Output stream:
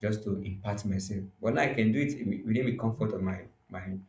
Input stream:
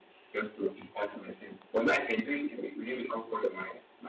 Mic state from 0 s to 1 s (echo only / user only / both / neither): echo only